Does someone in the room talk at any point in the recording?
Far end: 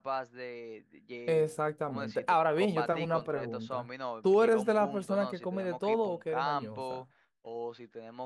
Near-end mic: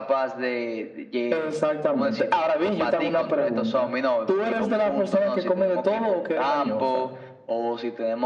No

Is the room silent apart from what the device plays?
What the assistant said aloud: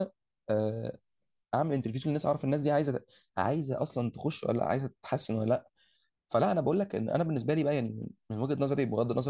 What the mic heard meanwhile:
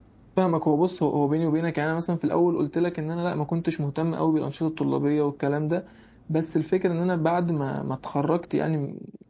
No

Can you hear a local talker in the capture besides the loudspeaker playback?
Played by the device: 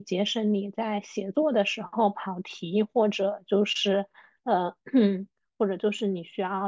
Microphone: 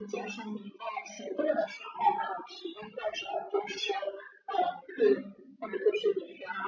No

